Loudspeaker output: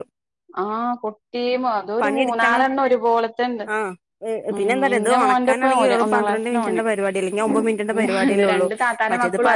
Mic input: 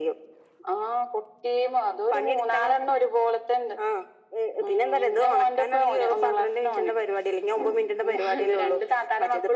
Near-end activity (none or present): none